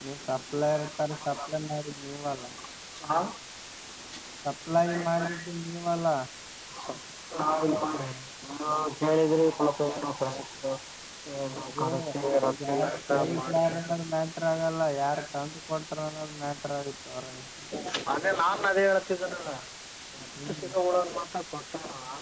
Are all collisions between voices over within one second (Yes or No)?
No